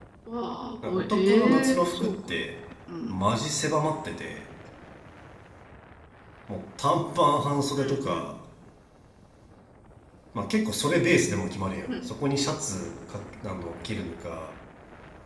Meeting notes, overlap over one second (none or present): present